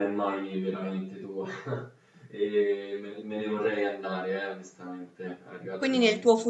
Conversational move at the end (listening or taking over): taking over